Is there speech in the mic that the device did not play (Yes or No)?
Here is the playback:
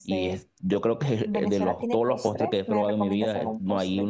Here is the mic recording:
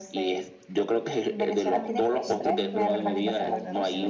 Yes